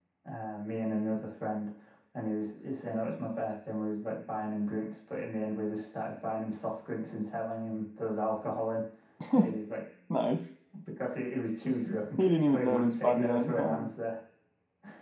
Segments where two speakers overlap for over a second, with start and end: 12.2-13.9

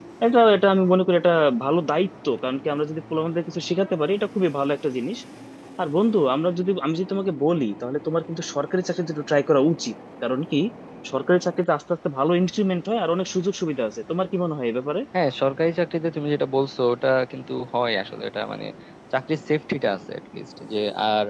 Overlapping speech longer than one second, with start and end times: none

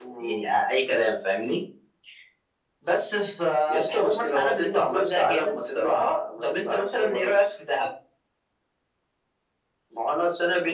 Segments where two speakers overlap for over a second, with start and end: 3.7-7.4

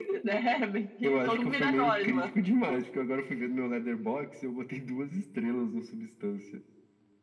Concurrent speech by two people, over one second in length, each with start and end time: 1.0-2.3

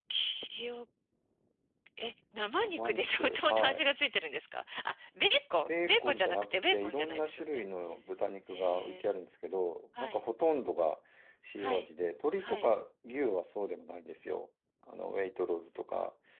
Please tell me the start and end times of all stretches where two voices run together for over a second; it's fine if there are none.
2.6-3.8, 5.7-7.6

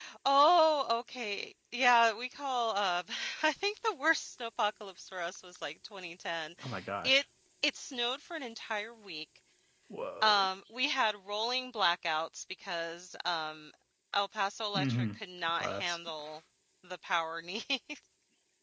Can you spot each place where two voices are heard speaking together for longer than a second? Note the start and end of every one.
none

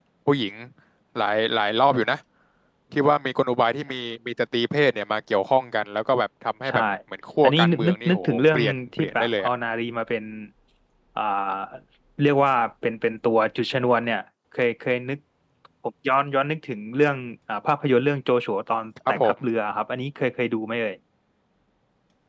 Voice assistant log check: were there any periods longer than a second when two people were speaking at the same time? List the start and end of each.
7.4-9.5

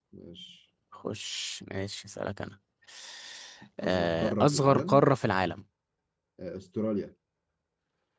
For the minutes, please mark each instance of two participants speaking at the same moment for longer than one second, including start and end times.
3.8-5.1

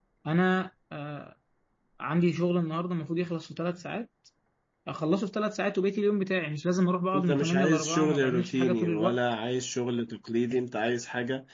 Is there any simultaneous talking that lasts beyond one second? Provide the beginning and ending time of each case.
7.1-9.2

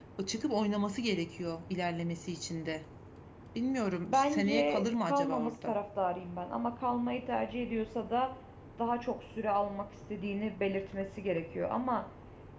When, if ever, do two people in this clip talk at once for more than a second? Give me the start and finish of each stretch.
4.0-5.7

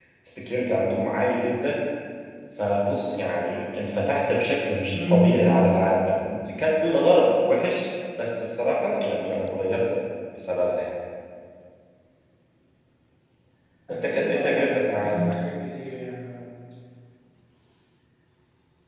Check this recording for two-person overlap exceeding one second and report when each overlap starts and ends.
13.9-15.2

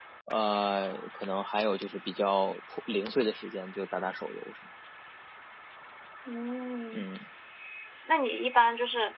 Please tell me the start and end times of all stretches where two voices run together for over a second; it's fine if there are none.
none

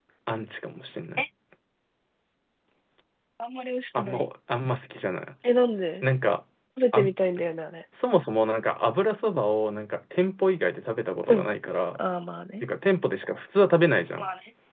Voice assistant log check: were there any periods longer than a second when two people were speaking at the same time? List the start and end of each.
none

